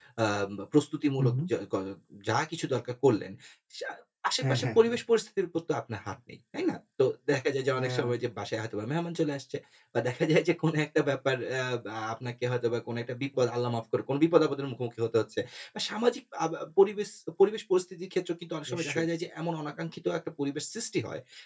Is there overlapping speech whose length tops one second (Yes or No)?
No